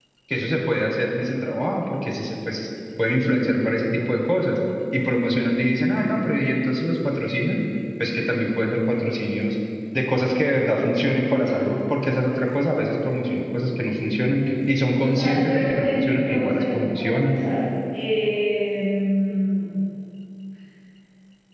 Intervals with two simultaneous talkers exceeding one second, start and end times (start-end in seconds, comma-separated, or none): 15.0-17.4